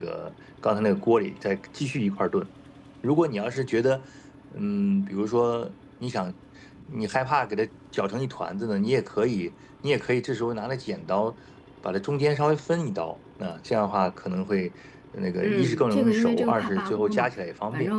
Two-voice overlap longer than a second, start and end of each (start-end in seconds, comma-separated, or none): 15.4-17.3